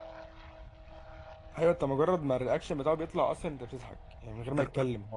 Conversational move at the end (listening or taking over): listening